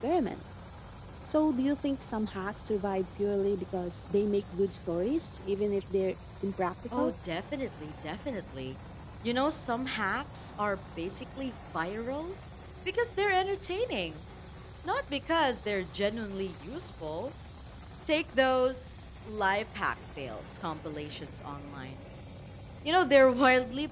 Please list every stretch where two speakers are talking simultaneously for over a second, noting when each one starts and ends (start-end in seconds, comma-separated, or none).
none